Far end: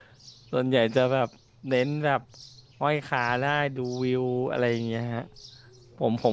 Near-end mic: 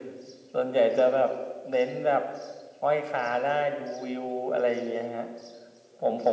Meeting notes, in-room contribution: none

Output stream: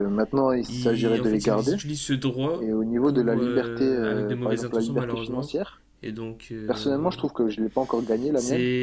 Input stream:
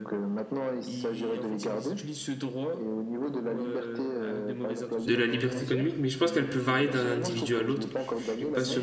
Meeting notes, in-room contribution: present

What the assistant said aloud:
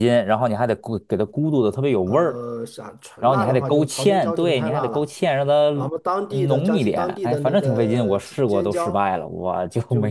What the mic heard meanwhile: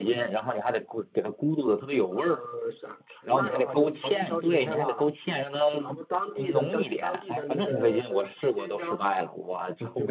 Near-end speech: none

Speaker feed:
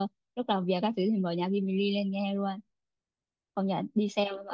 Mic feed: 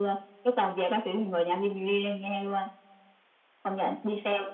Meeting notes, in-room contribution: none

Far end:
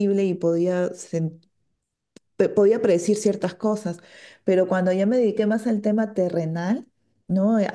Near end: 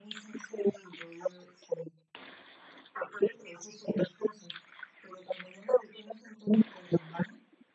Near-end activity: none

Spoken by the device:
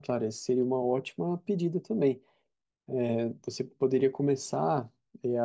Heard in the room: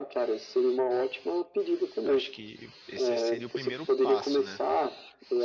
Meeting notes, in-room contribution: present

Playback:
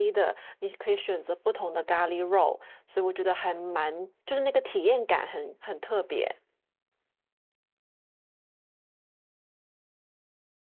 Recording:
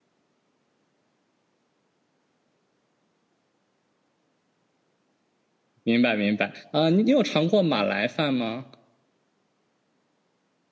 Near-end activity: present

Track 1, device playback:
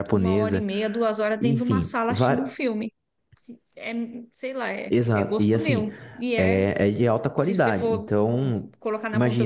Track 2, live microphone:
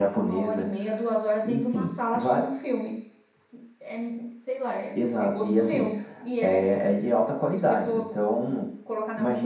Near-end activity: none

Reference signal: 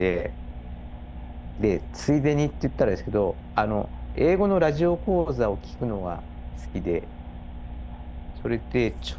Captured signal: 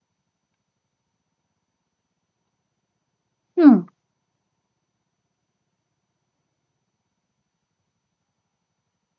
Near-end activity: present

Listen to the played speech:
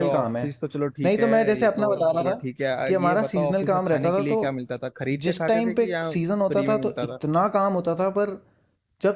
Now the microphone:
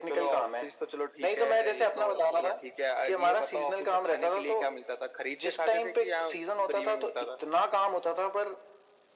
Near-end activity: none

